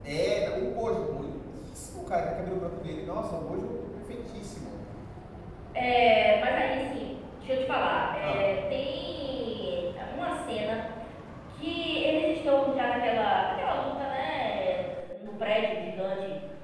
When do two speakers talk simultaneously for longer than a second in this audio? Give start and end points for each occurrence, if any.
none

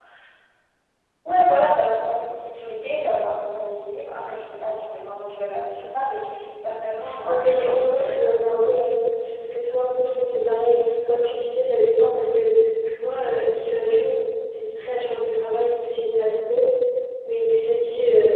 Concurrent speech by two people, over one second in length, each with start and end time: 7.3-8.7

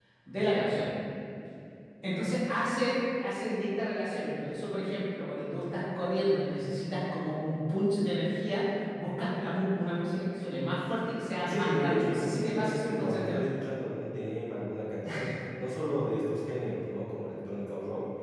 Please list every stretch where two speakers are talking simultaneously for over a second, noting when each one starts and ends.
11.5-13.6

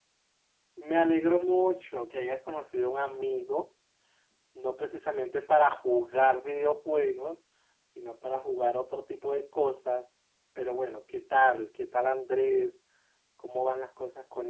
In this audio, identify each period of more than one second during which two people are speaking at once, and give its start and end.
none

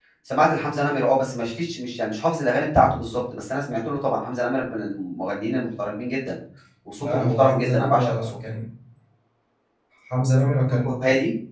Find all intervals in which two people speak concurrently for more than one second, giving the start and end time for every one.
7.0-8.3

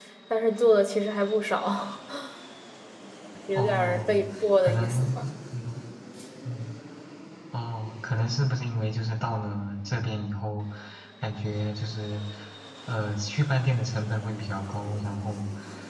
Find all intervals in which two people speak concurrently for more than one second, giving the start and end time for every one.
3.5-5.2

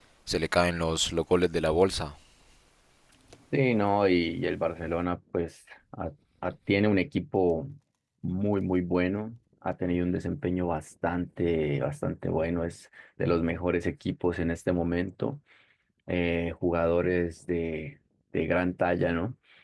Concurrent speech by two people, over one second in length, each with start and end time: none

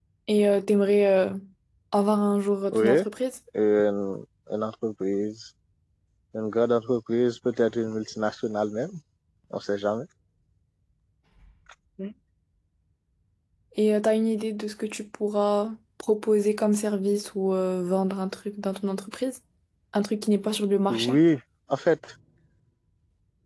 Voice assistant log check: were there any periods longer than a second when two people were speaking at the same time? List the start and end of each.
none

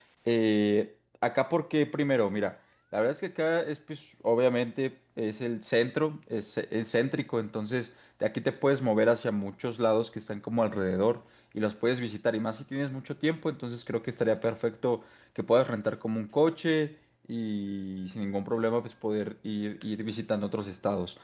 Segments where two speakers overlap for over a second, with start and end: none

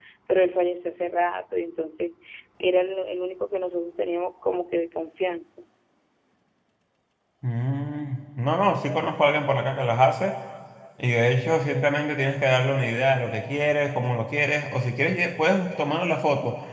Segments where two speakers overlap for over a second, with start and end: none

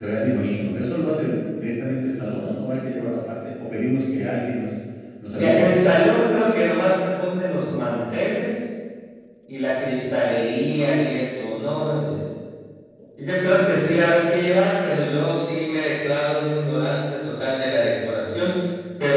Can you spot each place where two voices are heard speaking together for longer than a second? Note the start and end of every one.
none

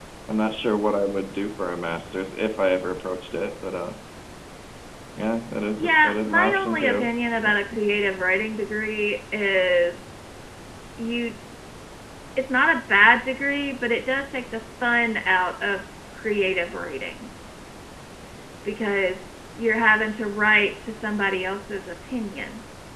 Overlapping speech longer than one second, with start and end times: 5.8-7.1

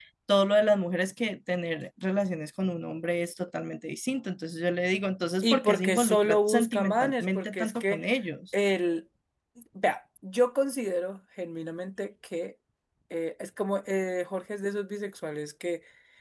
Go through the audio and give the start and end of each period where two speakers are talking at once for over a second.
5.4-8.0

